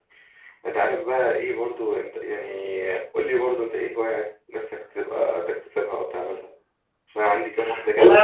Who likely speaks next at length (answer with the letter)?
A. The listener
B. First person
A